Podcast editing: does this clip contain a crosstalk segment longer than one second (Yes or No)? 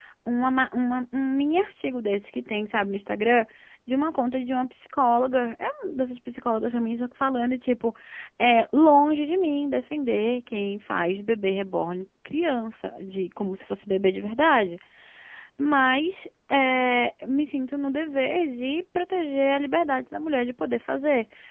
No